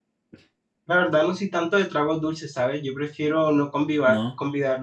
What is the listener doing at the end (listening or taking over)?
listening